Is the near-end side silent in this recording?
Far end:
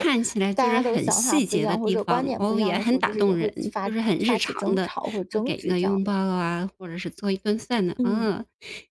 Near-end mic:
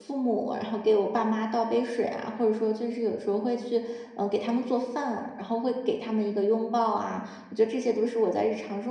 No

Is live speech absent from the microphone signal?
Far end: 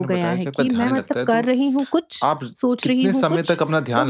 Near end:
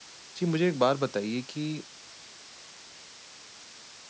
No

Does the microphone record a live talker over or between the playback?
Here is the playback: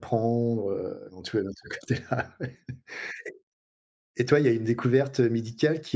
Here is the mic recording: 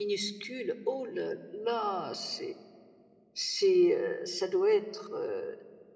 Yes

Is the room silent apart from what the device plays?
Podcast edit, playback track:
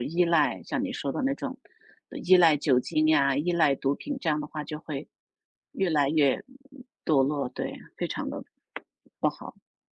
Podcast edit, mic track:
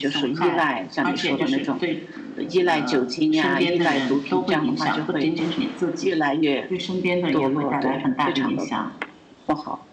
No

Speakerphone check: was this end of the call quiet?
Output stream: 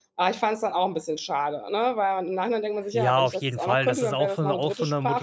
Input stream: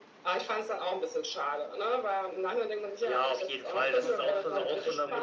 No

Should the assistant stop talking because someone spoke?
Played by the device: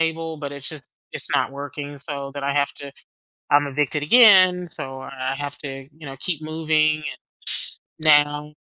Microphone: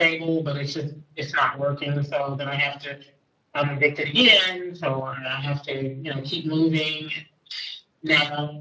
No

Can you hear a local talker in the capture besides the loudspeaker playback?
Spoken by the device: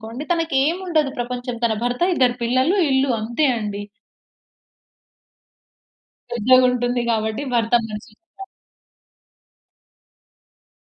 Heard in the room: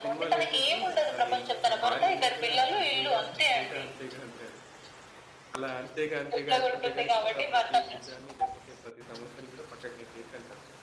Yes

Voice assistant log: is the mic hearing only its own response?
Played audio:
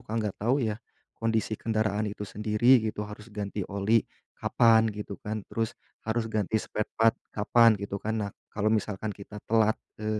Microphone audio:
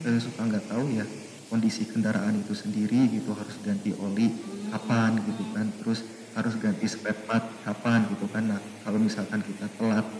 No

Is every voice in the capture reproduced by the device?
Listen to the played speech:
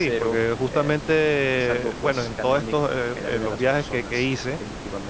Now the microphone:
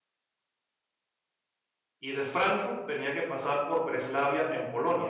No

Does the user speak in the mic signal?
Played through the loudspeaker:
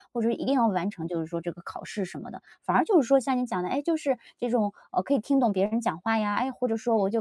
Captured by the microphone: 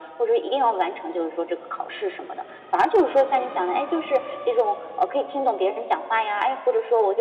No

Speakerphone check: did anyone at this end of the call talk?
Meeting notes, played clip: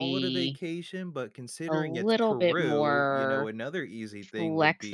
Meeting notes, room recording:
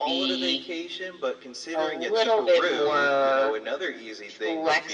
No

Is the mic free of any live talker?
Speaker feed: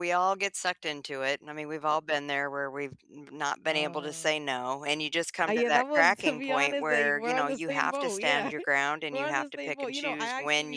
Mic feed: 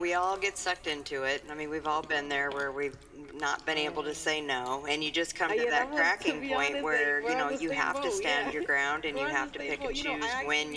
Yes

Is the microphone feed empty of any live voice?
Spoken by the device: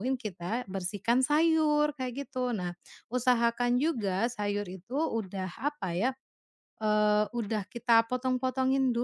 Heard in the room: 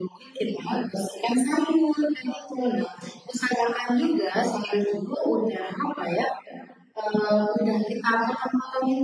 Yes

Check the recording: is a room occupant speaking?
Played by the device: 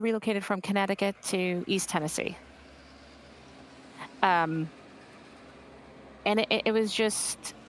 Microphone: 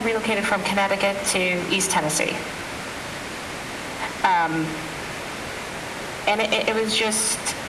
No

